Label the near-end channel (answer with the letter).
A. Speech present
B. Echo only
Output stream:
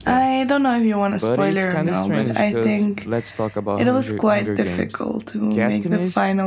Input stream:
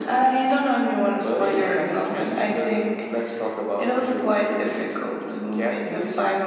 A